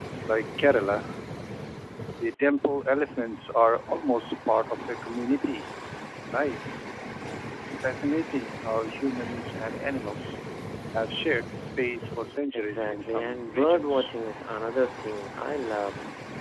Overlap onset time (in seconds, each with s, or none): 12.5 s